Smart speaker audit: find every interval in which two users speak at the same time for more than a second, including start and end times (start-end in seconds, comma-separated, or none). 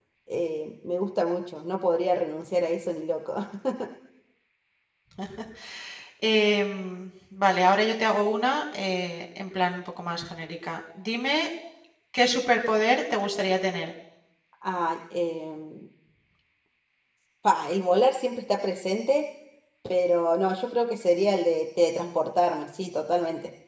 none